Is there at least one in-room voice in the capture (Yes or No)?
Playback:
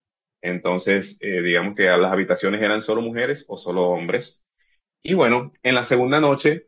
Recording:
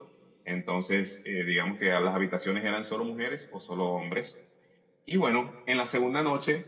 No